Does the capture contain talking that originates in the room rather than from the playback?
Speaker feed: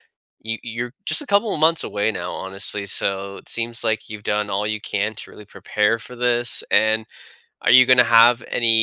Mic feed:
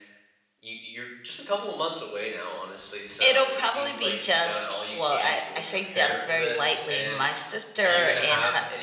Yes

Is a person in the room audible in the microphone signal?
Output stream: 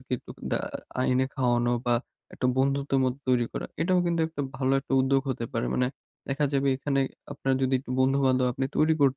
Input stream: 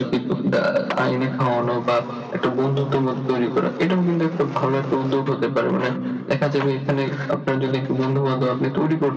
No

